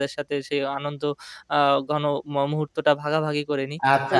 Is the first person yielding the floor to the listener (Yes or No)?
Yes